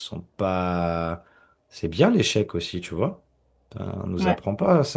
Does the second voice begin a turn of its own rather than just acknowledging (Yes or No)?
No